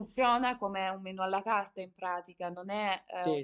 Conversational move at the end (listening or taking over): taking over